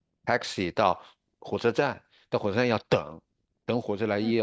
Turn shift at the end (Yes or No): No